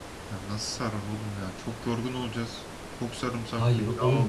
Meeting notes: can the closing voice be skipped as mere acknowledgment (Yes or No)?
No